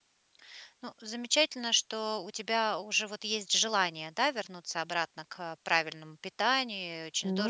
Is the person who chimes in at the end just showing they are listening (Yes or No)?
Yes